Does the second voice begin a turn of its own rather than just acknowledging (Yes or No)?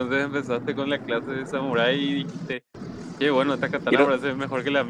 No